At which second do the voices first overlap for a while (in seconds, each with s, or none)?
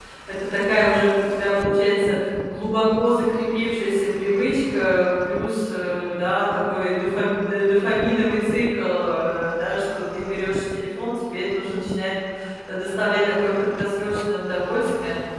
none